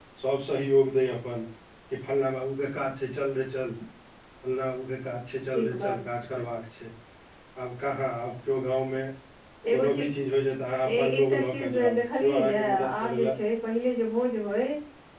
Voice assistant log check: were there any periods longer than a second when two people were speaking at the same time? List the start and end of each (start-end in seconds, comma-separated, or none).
10.9-13.3